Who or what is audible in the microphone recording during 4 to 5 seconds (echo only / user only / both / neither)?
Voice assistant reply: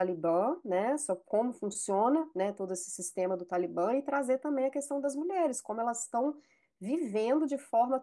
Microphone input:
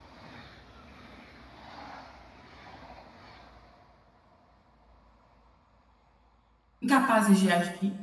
neither